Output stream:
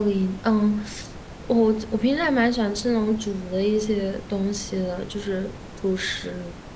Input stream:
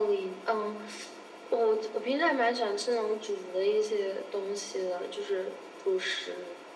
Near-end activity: none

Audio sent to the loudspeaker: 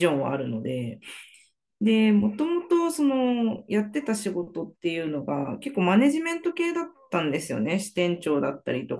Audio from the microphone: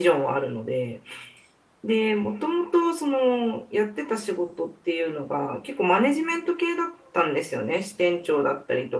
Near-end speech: none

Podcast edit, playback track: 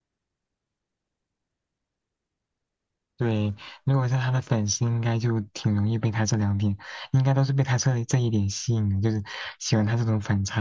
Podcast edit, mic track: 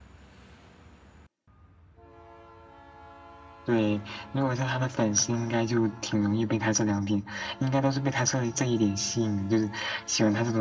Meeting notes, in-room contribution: none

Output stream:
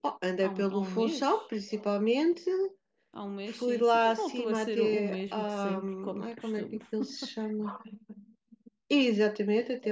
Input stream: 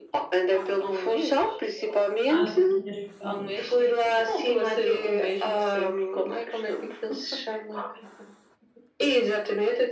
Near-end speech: present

